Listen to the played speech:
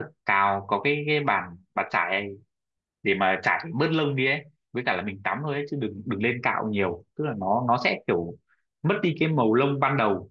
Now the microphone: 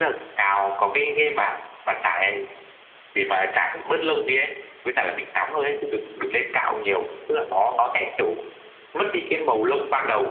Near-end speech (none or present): none